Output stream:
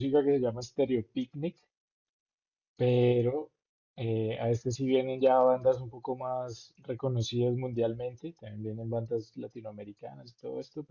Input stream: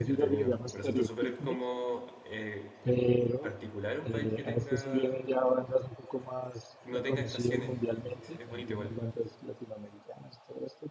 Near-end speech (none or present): present